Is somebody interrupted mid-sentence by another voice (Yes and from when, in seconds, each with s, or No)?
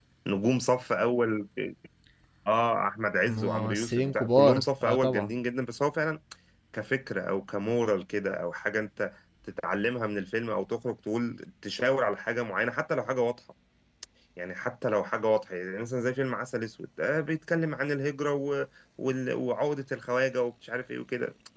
Yes, from 3.2 s